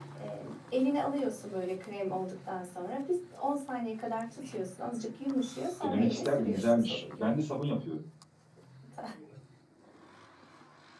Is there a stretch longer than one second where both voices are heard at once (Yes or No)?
Yes